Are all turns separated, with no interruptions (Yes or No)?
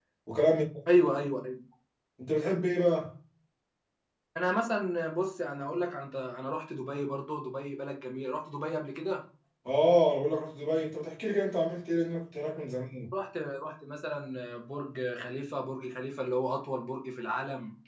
Yes